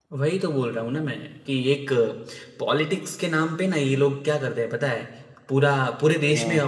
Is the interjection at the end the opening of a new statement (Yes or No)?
No